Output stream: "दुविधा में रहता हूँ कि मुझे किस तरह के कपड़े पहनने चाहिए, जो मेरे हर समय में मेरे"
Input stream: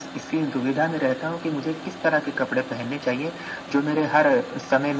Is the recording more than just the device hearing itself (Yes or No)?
No